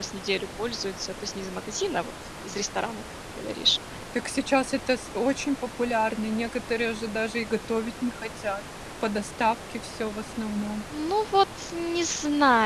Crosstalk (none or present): none